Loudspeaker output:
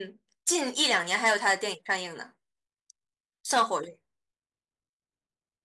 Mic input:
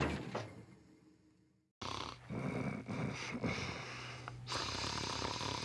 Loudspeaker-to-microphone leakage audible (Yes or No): No